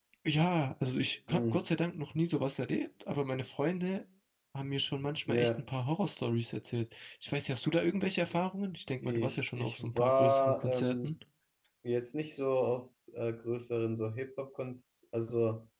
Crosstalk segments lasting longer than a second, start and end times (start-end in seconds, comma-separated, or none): 9.0-11.1